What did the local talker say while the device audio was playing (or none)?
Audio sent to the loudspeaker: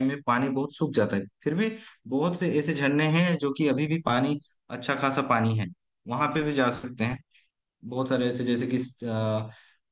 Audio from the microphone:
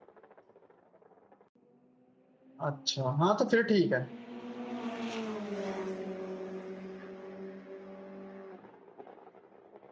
अच्छा हाँ तो फिर ठीक है